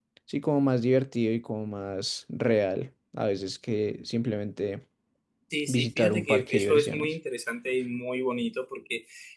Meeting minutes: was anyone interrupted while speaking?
Yes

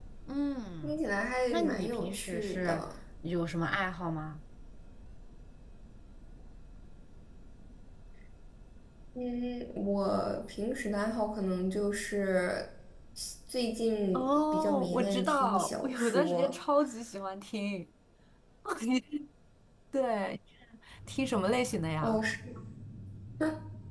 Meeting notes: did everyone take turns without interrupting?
No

